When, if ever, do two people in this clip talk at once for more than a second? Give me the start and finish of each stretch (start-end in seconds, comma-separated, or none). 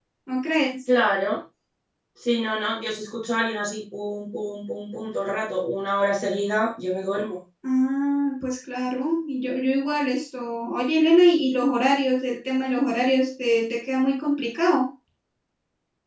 none